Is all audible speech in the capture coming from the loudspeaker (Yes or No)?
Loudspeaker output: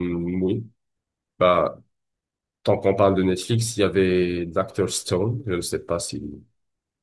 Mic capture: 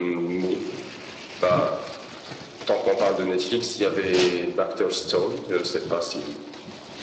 Yes